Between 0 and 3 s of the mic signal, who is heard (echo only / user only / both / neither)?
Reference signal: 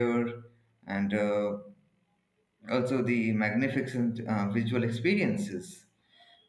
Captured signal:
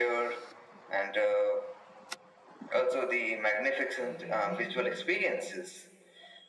echo only